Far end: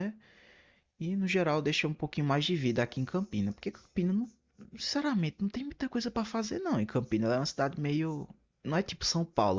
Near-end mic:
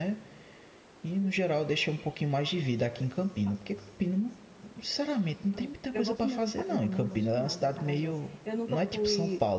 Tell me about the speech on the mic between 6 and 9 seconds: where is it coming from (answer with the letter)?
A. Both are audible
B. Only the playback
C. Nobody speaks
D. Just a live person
A